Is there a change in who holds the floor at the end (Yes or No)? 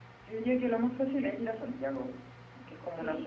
No